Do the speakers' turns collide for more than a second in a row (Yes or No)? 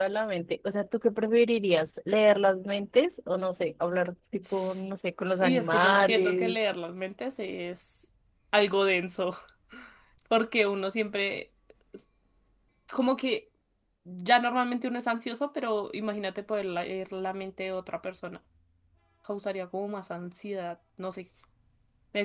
Yes